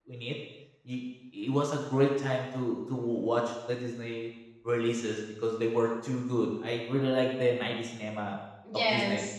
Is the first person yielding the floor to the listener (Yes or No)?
No